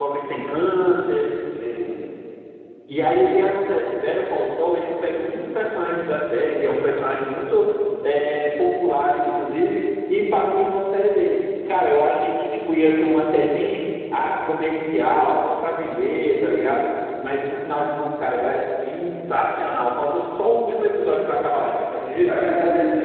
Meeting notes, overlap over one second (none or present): none